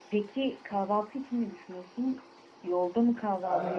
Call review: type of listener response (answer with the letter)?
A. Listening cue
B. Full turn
B